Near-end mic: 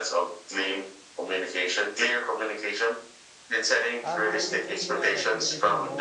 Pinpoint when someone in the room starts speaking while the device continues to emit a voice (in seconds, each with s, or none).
4.0 s